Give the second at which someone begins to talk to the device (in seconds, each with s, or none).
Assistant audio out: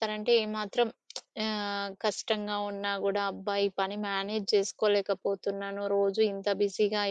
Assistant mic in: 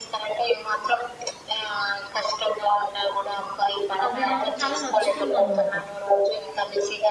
4.1 s